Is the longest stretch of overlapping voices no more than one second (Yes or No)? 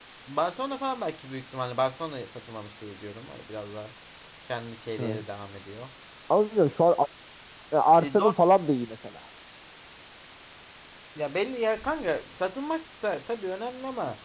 Yes